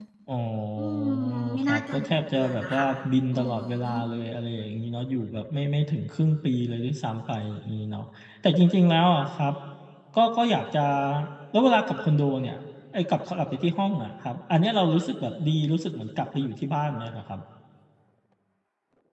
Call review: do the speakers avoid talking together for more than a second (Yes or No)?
No